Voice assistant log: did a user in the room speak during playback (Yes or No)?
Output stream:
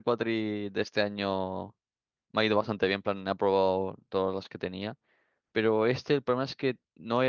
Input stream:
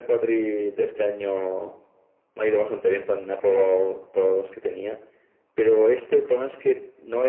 No